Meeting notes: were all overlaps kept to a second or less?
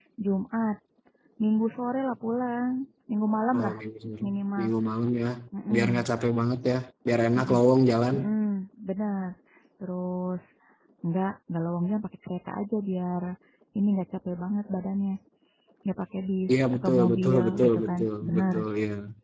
No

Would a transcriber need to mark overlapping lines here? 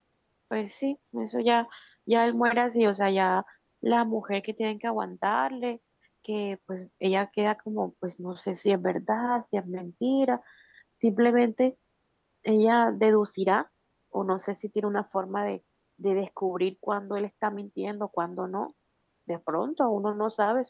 No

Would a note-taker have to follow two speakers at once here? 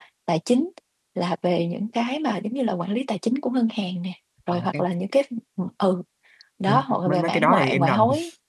Yes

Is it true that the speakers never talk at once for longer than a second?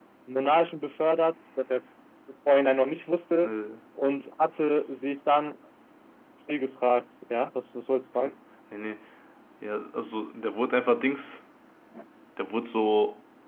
Yes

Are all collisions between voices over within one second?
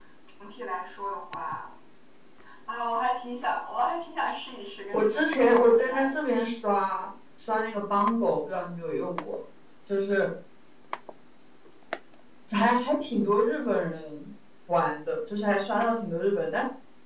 No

